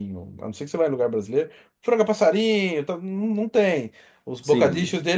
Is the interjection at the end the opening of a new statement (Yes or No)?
No